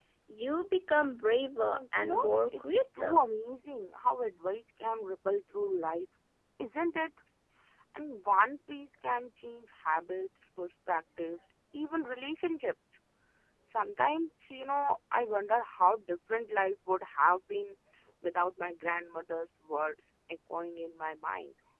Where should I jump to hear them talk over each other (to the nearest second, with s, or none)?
2 s